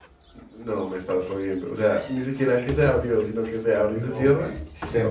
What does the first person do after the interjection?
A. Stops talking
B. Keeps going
A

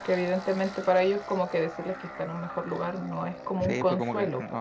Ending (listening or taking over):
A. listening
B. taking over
B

